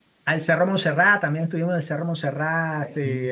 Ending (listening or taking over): listening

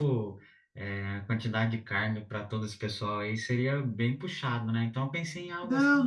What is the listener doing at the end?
taking over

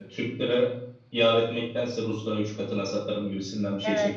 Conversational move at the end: taking over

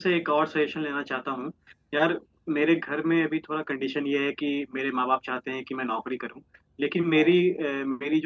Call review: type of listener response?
listening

